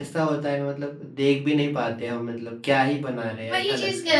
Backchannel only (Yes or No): No